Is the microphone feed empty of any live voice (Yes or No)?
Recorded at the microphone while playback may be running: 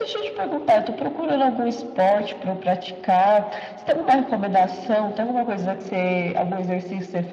Yes